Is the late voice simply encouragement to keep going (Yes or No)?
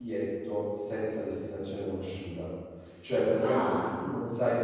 Yes